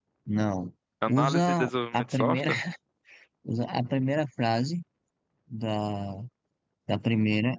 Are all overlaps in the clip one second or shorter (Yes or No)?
No